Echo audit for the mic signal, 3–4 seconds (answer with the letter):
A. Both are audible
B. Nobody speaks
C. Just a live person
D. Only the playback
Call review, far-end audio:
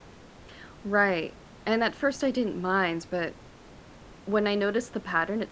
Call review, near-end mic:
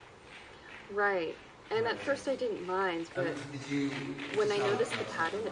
A